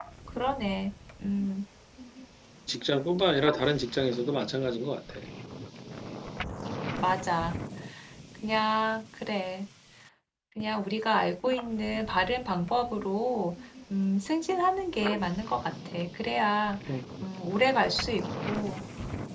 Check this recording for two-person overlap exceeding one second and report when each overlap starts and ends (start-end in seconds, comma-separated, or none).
none